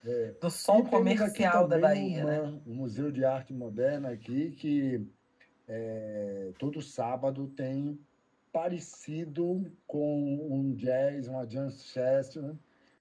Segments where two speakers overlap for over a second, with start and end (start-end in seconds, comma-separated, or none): 0.7-2.4